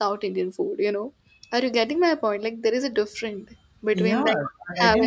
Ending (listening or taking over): taking over